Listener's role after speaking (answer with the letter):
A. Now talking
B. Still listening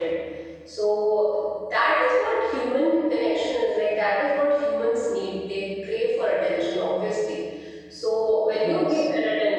B